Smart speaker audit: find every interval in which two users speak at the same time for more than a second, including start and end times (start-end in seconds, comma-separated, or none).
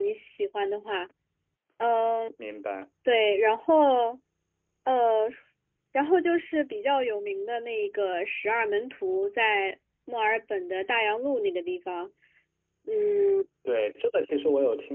none